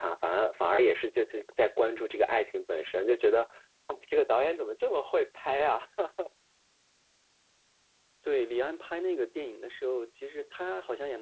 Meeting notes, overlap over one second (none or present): none